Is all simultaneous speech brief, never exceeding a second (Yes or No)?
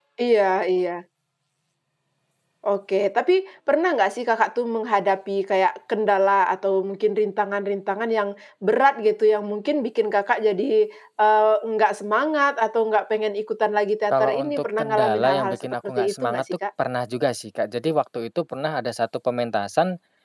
No